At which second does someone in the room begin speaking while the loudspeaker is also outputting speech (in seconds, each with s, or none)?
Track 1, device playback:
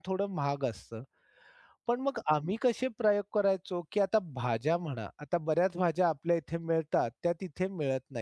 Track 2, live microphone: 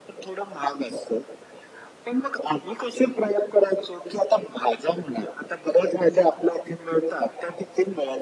none